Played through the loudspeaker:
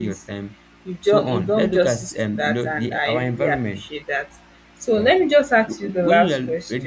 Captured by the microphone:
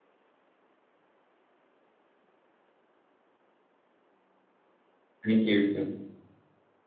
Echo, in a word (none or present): none